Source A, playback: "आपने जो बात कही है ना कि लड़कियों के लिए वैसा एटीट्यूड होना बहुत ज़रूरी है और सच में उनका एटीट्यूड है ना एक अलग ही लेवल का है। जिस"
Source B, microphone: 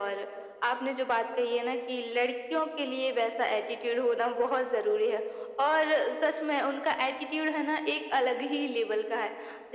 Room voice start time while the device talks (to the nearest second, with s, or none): none